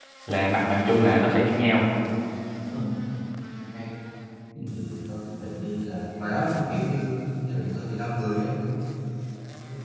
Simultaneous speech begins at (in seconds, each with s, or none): none